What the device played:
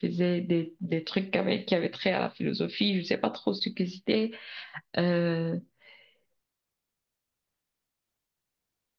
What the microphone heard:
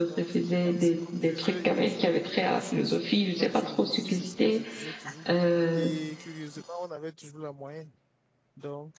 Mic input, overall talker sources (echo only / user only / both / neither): both